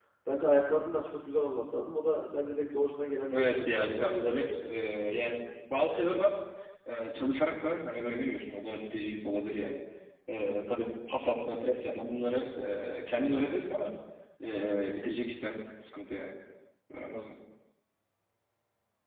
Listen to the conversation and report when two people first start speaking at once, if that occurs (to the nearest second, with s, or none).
3 s